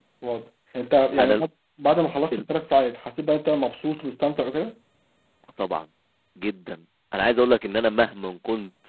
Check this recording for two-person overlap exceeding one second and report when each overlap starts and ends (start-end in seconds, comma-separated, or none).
none